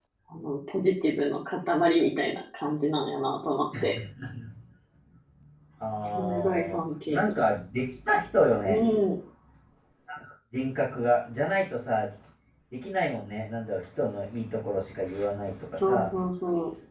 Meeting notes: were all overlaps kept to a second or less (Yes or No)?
No